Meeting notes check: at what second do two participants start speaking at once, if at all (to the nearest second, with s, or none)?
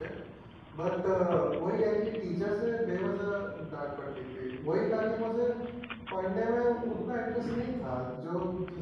none